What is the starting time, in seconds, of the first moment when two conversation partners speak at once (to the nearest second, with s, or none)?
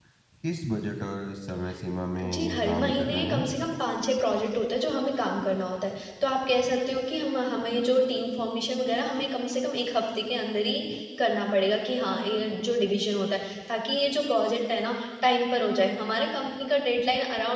2 s